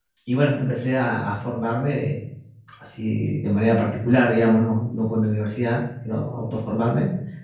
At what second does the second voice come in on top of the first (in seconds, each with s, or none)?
none